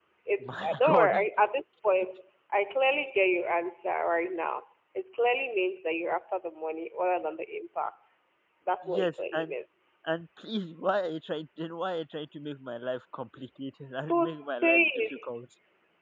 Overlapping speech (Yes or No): Yes